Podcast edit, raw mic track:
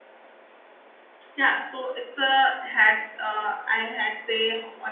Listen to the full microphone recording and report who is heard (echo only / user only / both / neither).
user only